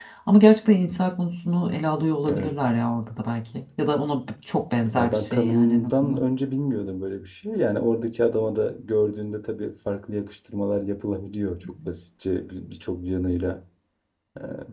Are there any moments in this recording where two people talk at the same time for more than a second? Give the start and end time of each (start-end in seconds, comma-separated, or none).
4.9-6.2